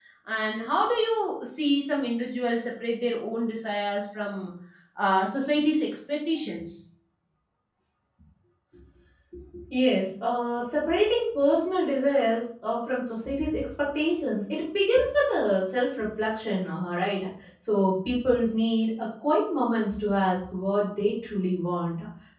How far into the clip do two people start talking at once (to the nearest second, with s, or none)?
none